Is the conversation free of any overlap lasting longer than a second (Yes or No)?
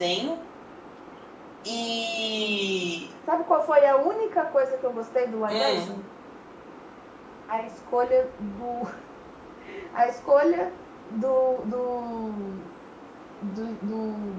Yes